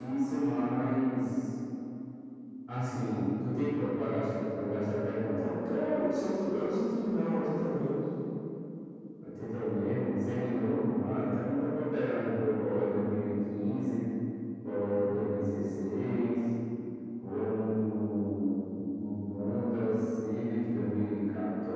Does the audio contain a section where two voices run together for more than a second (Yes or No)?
No